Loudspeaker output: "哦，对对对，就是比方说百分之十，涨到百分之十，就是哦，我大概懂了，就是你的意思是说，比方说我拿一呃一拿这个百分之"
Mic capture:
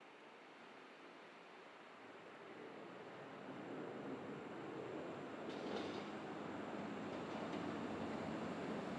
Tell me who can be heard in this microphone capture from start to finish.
neither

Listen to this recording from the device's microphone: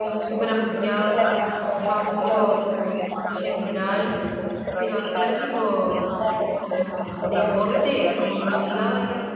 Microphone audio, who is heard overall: both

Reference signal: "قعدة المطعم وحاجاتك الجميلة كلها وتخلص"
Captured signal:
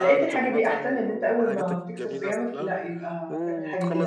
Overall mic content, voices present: both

